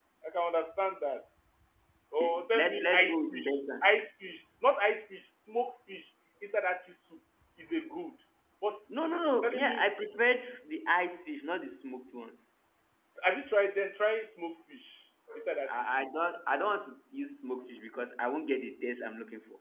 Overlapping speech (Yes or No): Yes